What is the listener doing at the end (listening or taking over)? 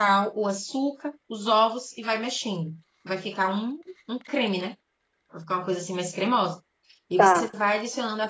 listening